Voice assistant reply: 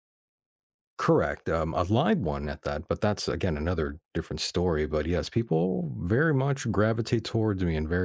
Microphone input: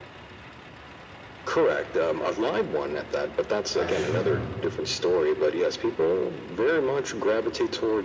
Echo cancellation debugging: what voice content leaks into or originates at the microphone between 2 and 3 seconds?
echo only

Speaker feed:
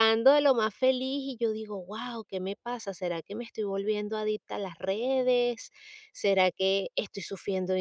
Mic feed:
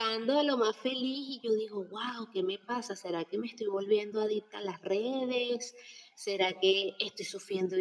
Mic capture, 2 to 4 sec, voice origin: echo only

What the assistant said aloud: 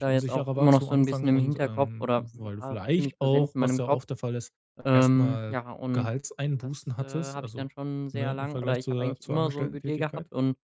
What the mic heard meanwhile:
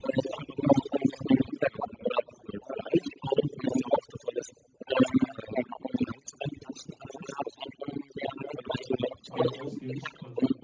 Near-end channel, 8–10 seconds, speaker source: both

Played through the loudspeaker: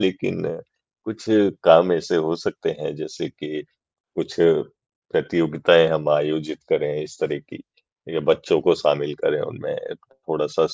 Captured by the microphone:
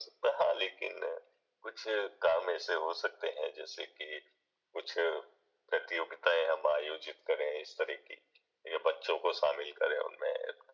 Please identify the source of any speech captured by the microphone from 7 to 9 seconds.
echo only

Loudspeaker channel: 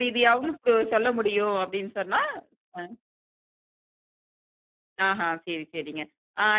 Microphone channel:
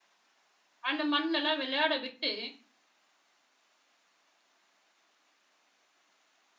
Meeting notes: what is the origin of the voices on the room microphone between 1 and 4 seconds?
user only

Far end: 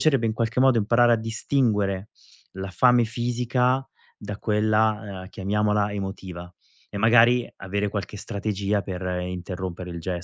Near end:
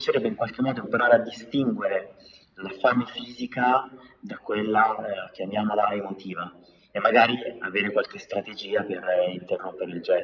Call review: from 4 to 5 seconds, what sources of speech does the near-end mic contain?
echo only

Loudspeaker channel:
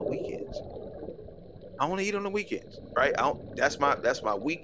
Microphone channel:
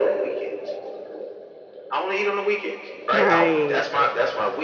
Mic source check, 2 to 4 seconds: both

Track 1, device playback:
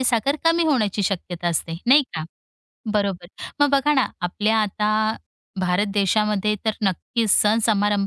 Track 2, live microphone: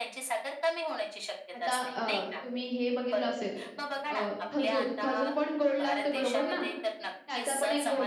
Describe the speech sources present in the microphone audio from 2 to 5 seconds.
both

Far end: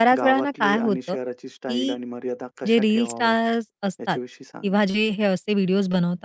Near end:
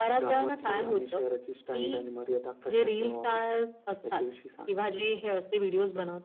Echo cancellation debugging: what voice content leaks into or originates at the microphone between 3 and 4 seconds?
echo only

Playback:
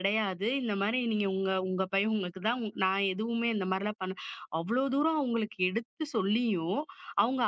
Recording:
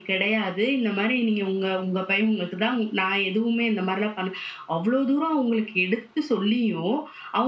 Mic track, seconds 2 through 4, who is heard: echo only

